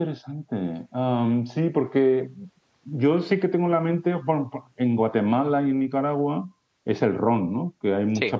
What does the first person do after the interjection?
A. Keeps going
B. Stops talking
A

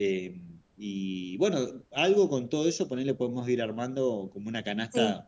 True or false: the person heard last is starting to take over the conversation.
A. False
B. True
B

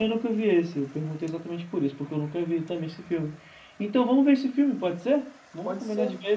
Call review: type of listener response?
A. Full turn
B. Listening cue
A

